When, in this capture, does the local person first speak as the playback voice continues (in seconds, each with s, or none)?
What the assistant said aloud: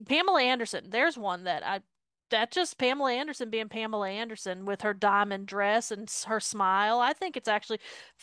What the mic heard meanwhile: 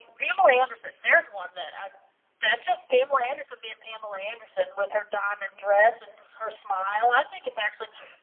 none